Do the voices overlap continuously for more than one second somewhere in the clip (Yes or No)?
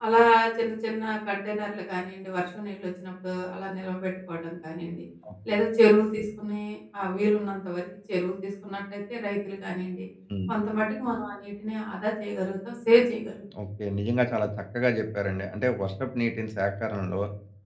No